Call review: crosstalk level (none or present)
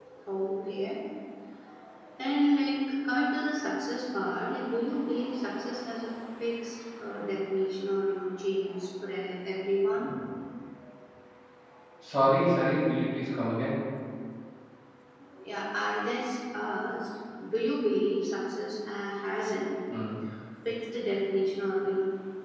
none